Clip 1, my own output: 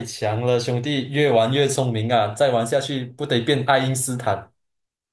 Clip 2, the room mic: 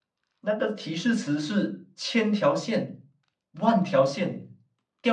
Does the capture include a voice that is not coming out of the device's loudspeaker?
Yes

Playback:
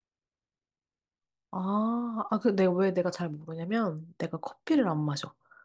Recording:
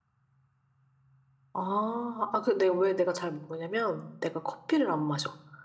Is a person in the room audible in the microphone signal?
No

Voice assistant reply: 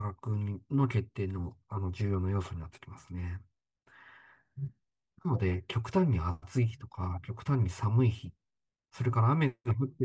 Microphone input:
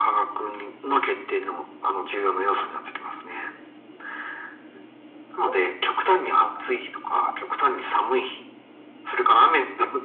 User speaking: No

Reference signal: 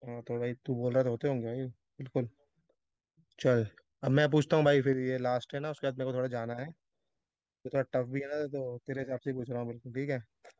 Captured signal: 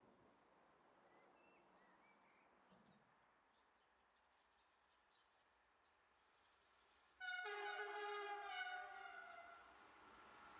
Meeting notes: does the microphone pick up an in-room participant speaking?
No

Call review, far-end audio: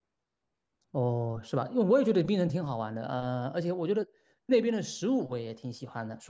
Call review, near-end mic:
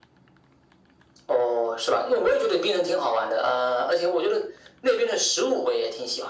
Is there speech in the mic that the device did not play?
No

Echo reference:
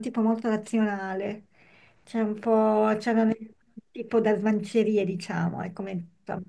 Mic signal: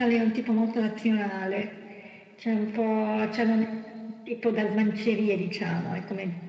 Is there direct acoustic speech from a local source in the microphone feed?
No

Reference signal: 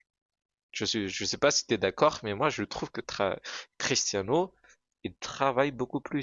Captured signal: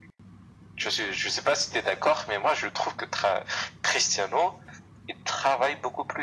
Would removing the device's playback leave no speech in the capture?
Yes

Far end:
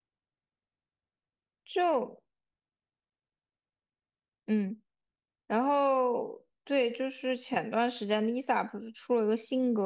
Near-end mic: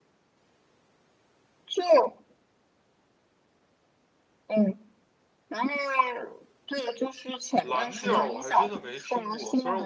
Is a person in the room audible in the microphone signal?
Yes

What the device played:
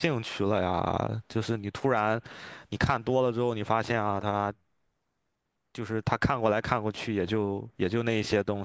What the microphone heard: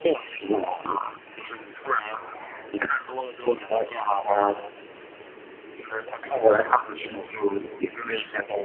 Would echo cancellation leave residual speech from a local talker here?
No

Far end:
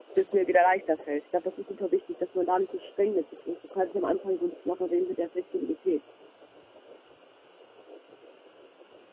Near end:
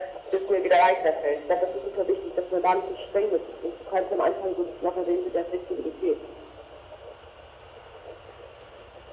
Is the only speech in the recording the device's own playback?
Yes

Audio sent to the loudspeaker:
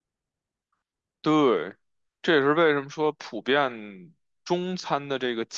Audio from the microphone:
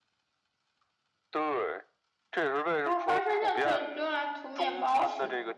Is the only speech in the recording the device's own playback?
No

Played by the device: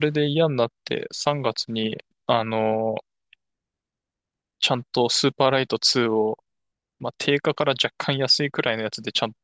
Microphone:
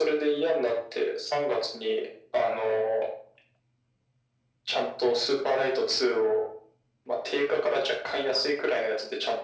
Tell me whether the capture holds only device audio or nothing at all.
Yes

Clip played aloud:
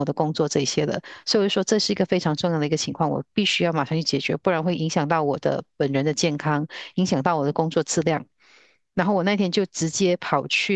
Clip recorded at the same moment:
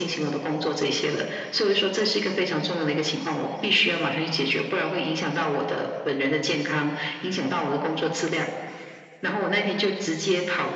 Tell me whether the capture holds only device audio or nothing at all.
Yes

